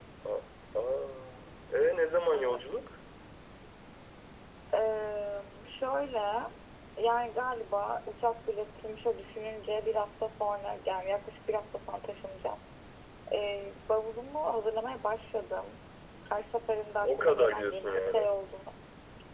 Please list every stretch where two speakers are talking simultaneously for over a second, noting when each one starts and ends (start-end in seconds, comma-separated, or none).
17.0-18.3